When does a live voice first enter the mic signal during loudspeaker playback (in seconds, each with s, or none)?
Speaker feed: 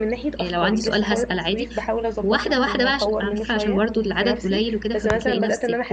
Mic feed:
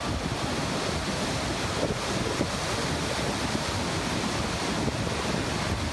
none